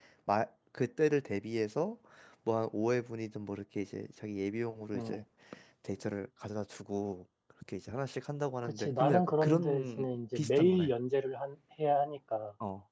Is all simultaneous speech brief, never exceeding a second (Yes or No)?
No